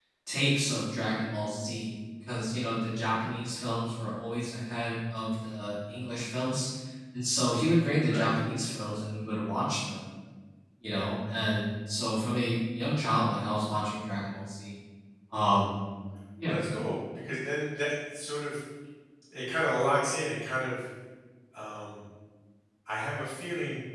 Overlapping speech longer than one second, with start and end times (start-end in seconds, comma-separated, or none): none